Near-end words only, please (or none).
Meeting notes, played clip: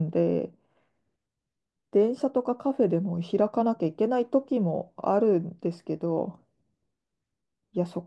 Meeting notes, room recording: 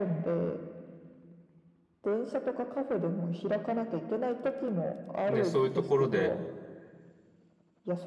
でそういうところで